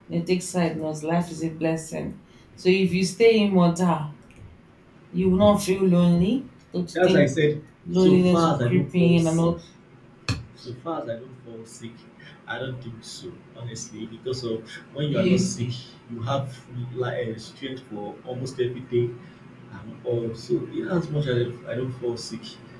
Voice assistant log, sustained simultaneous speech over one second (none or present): present